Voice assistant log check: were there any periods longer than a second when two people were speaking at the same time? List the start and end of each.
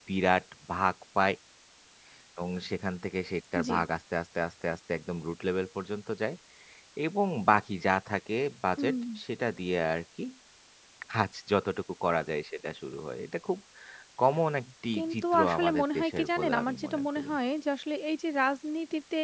14.9-17.3

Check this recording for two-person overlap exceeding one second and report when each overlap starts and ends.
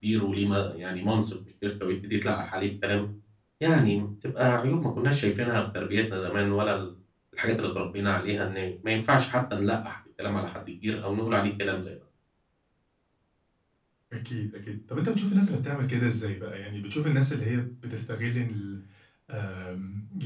none

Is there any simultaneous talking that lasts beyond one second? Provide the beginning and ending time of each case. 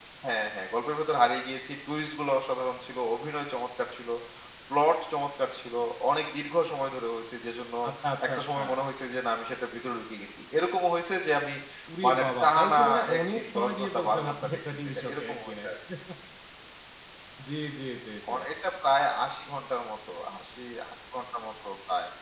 12.0-15.6

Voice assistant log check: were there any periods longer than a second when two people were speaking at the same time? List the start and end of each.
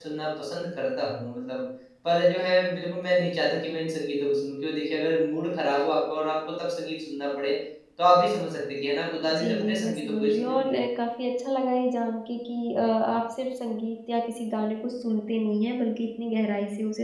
9.3-10.7

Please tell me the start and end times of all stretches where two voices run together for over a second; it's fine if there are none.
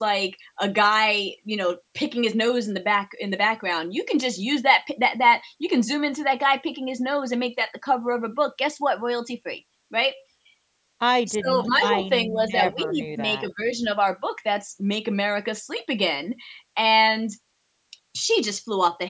11.3-13.5

